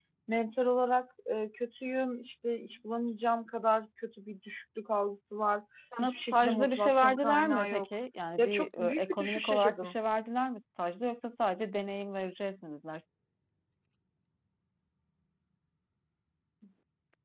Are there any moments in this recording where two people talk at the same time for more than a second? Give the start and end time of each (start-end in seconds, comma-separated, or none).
6.0-7.9, 8.4-10.0